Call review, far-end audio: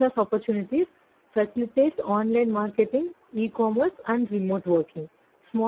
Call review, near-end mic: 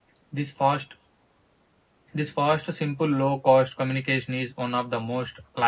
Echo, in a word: none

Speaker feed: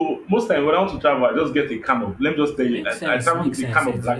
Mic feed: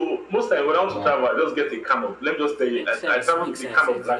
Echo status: present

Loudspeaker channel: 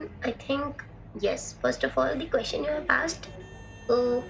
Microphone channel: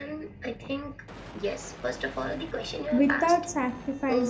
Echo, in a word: present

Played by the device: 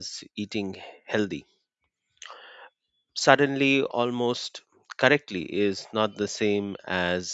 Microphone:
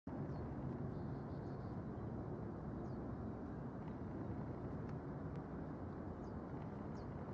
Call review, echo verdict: none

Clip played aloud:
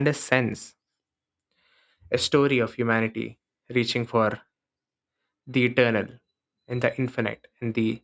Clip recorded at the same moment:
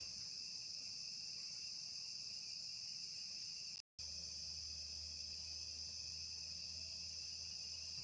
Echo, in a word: none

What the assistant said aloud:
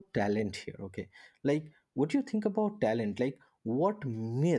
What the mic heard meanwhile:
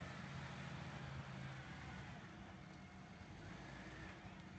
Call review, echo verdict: none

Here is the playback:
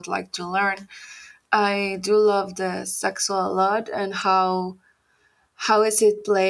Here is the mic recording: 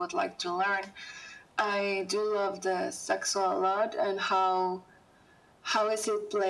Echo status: present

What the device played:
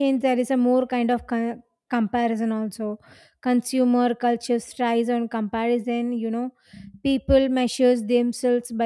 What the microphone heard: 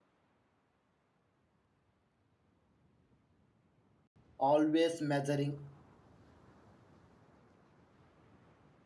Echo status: none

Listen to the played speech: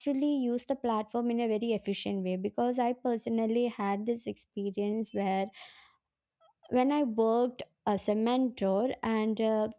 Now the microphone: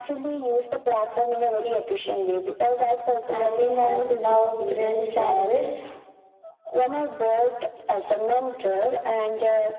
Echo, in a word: present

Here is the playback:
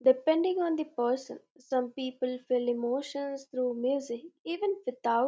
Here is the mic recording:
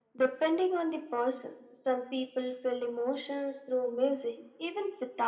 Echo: present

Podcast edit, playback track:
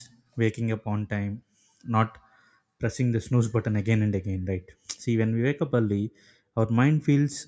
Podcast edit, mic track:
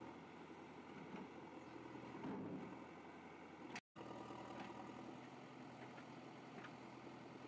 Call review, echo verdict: none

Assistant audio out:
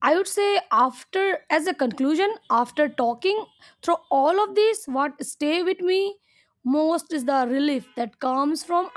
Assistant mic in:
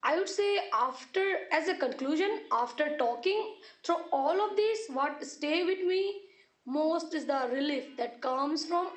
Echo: present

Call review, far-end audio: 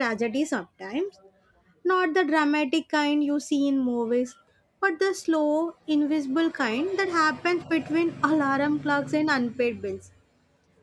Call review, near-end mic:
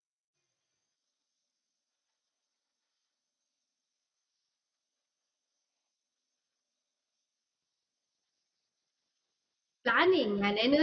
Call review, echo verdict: none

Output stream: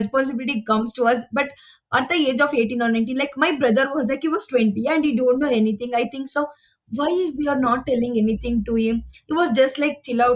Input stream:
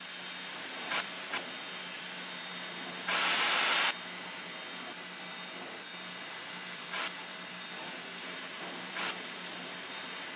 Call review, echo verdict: none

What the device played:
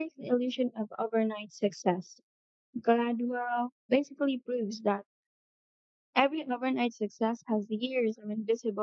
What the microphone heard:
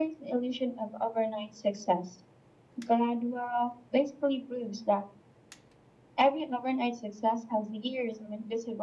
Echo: present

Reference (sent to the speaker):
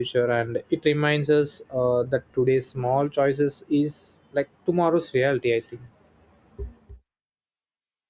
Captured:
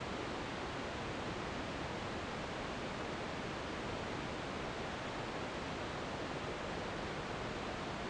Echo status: none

